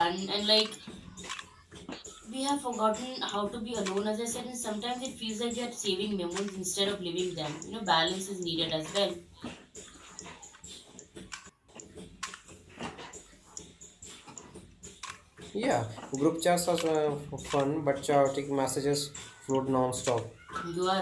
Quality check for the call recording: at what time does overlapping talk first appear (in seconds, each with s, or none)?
none